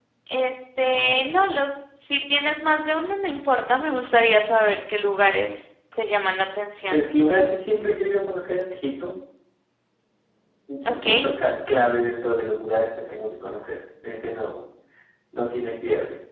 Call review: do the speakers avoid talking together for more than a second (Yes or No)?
Yes